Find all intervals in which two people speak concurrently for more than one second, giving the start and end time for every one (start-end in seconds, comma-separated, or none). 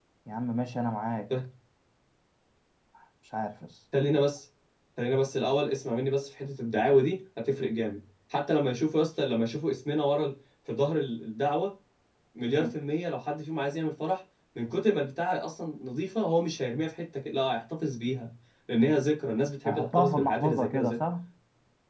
19.6-21.0